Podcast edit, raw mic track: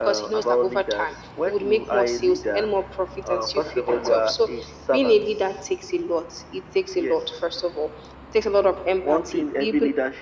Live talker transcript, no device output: none

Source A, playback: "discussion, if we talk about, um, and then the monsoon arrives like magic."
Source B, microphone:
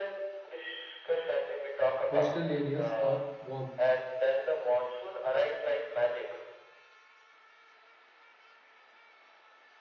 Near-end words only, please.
coastal areas are warm.

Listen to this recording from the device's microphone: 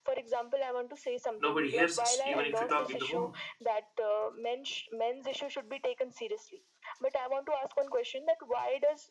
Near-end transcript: Nobody hears us, even if we talk in the home.

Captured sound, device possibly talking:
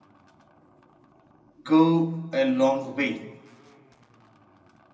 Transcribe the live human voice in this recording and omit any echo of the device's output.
go a long way

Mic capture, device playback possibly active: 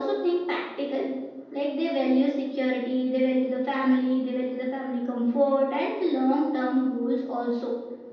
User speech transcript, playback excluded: none

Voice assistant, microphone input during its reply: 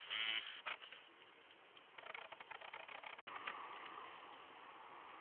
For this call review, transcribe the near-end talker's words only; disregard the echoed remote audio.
none

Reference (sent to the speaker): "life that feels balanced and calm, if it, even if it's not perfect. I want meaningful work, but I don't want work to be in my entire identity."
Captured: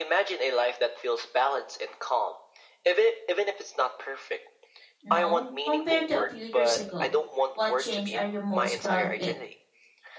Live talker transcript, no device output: now compared to a few years ago, what change are you most proud of it?

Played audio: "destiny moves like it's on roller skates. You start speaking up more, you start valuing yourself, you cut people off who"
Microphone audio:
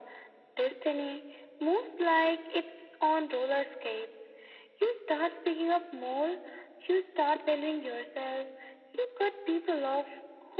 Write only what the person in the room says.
none

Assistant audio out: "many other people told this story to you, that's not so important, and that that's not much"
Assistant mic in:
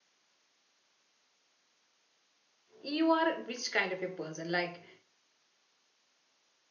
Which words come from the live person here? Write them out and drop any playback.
you are which kind of a person like

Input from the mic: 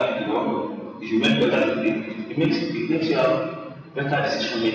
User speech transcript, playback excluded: none

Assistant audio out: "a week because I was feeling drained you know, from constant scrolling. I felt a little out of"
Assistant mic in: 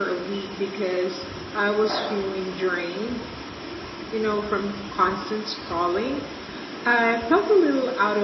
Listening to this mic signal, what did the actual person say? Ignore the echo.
none

